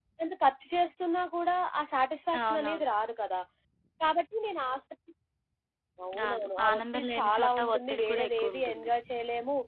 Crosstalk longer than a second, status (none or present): present